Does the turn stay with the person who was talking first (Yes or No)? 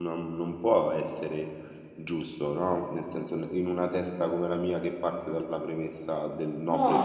No